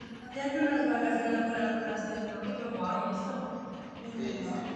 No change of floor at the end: No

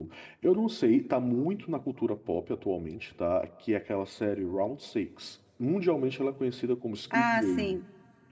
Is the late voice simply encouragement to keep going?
No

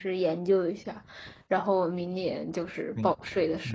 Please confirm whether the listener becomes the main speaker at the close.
Yes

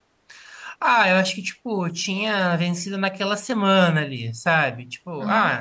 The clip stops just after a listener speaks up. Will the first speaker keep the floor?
Yes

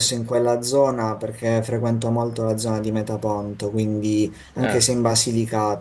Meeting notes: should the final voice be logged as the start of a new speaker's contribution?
No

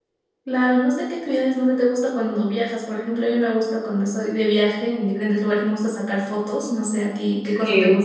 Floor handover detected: Yes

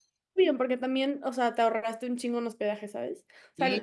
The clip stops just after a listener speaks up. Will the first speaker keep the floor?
No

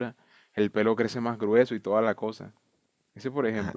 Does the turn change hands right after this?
Yes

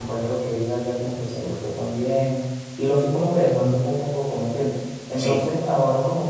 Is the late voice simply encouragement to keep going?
Yes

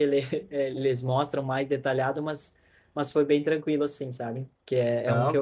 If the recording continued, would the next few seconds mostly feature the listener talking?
No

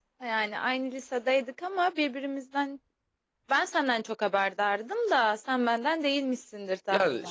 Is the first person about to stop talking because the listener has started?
Yes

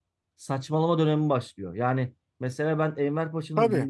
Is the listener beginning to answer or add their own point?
No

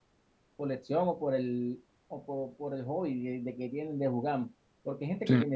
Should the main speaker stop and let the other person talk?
No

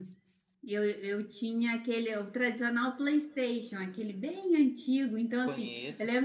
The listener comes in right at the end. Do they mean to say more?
No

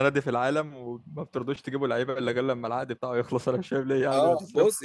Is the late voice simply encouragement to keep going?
No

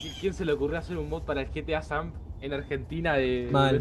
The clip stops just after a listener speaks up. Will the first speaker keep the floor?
No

